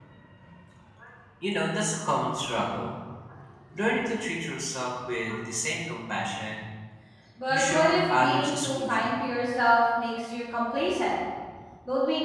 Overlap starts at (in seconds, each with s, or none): 7.5 s